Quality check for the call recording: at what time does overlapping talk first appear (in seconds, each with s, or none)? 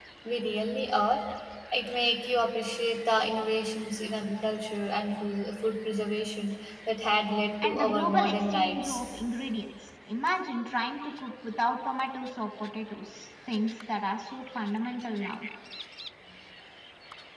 7.6 s